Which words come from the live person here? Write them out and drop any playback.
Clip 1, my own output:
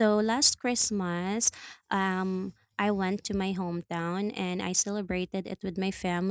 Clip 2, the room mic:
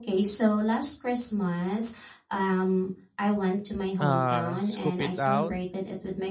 uh, scoop it out,

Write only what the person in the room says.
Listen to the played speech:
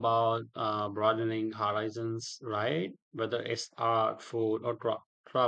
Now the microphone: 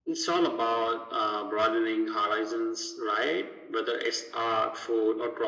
none

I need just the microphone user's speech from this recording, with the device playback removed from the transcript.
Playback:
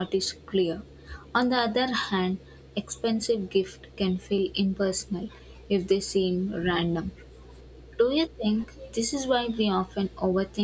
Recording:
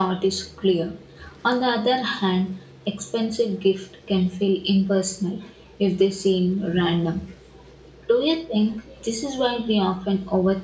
none

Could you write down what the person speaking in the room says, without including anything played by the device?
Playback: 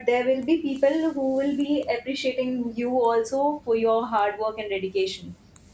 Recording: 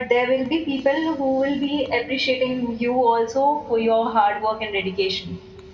none

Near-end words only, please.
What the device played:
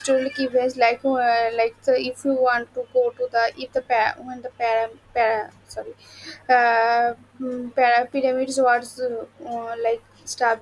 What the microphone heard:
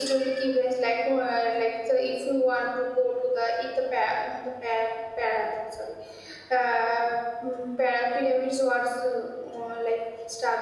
none

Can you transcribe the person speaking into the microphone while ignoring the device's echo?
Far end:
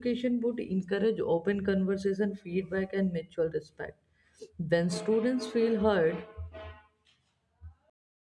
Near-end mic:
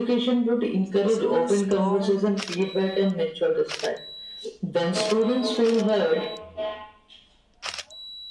So, strong

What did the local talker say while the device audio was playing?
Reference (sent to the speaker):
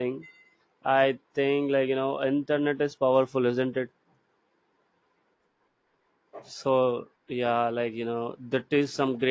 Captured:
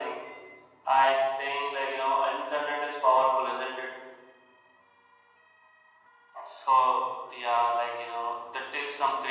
none

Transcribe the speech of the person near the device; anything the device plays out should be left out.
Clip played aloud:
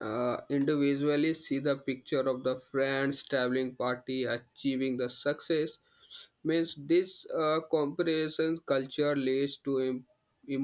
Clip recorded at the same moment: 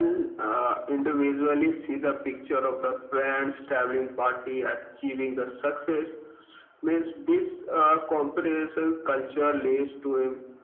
none

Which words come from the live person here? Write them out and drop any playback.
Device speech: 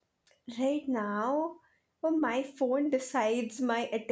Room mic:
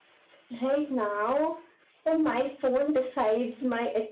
none

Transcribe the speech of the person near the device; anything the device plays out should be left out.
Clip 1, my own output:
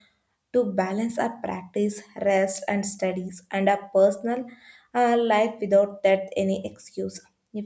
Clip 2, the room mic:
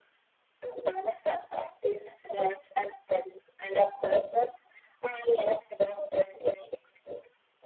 none

